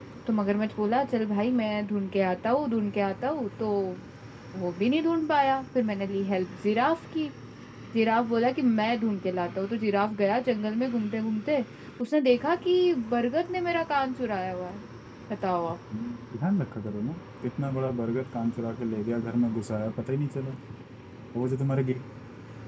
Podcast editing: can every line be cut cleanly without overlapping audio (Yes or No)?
Yes